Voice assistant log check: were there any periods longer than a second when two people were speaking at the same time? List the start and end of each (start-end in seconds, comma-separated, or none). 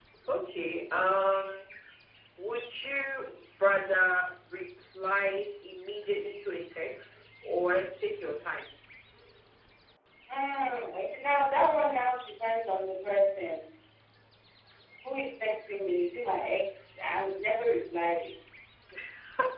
none